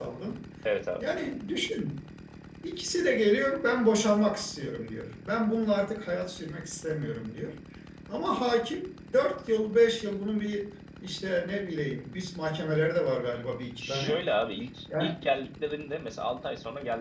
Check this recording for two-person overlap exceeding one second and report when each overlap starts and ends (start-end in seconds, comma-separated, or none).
none